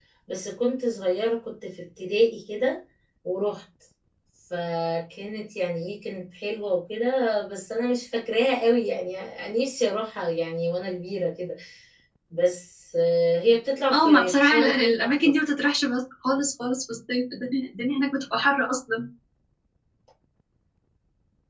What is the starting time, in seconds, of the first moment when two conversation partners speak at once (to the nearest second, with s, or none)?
14 s